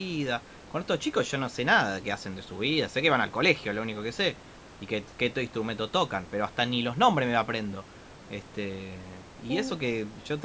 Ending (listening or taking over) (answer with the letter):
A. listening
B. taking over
A